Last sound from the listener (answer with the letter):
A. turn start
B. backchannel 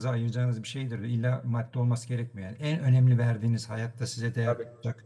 B